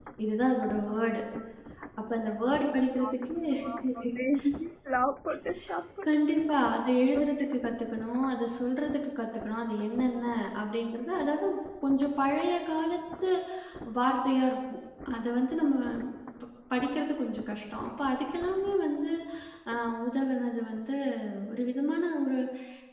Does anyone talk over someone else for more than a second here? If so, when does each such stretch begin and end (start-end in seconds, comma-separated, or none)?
none